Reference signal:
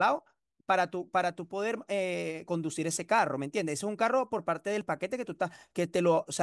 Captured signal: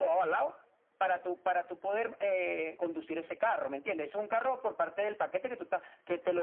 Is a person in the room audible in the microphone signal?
No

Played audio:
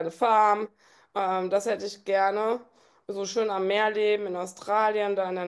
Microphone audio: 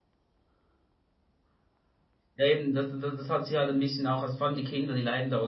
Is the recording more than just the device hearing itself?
Yes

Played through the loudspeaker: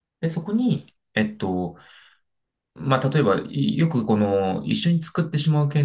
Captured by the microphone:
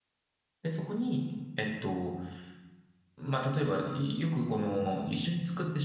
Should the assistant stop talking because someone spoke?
No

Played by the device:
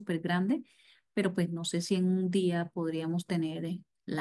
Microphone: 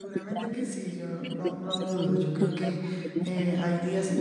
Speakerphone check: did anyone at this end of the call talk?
Yes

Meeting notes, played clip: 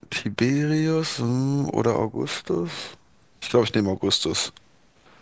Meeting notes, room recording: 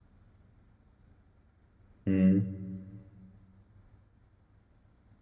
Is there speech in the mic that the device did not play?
Yes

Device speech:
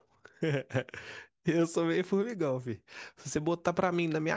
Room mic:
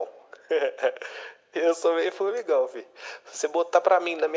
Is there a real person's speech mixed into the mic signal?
No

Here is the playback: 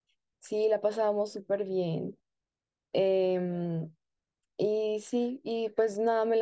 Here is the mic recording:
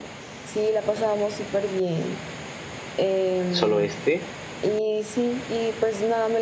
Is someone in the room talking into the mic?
Yes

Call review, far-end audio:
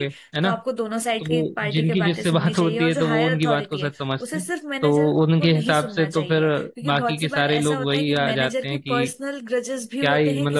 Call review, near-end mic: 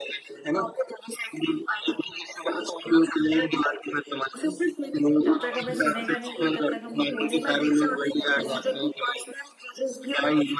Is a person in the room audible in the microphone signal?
Yes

